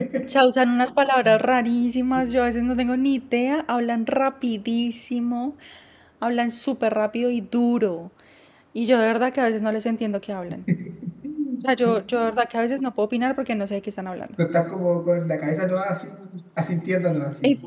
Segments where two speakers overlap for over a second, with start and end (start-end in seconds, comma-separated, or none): none